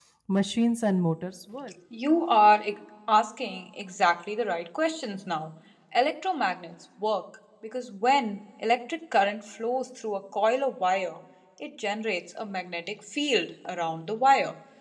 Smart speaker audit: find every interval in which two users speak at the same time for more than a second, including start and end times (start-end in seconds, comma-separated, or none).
none